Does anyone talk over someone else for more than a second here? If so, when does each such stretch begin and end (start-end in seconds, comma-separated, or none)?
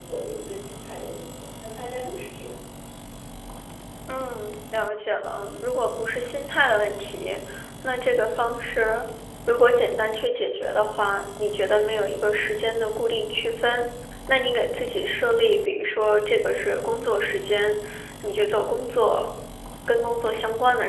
none